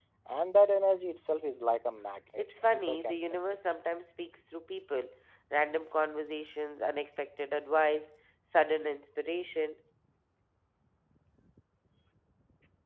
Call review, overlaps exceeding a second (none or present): present